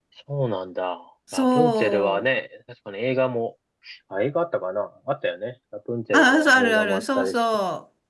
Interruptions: present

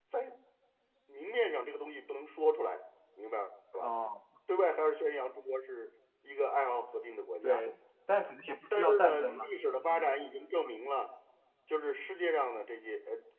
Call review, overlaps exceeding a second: present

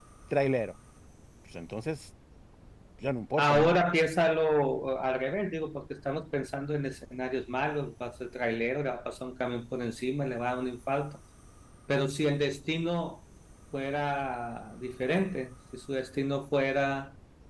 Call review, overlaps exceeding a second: none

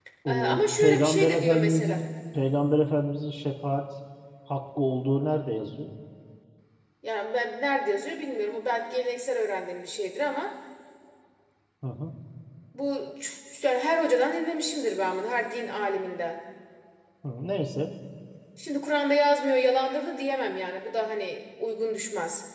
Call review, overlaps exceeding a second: present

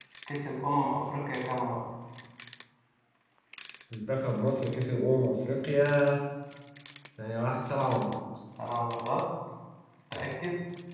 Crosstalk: none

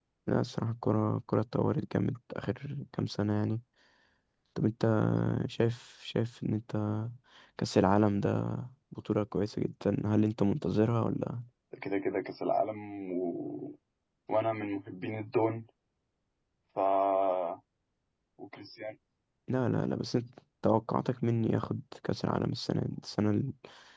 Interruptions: none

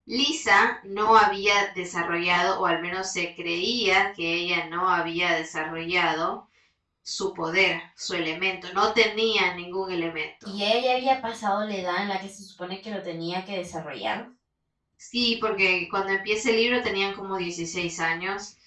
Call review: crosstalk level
none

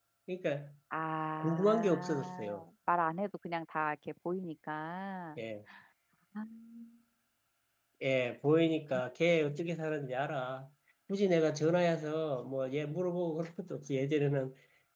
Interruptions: present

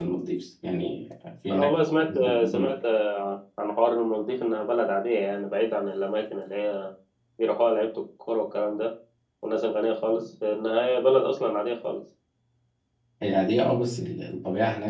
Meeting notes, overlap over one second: present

